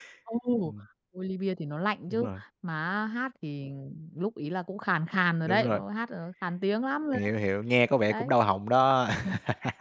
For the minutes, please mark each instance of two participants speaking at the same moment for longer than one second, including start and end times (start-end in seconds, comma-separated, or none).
none